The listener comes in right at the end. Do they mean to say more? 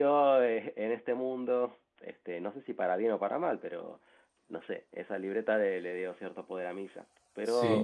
Yes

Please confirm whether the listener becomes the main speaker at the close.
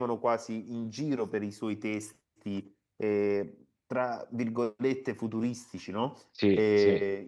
No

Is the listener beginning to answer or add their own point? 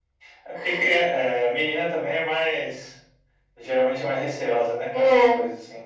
Yes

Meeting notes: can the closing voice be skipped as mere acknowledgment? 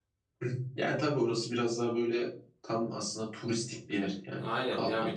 No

